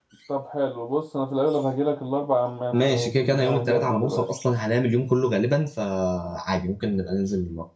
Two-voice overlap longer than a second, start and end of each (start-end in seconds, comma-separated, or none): 2.7-4.3